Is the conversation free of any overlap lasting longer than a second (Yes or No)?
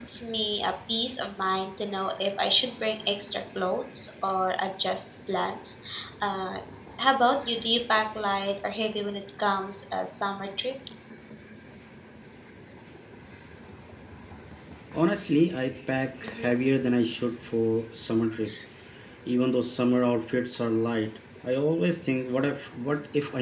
Yes